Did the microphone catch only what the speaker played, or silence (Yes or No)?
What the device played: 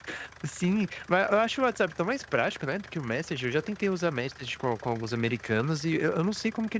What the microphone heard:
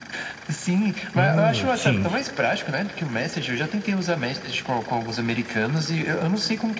No